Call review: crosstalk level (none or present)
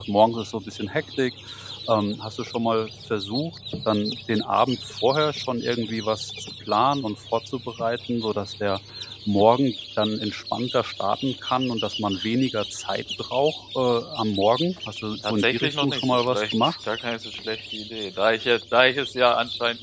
present